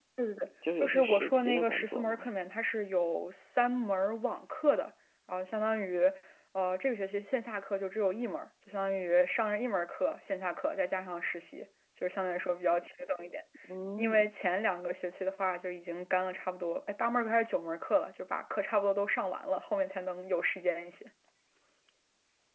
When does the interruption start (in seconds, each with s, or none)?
0.8 s